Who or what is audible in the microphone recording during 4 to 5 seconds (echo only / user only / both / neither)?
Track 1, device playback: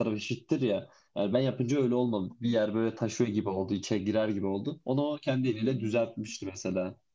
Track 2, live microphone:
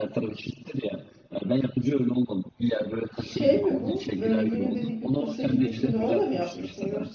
both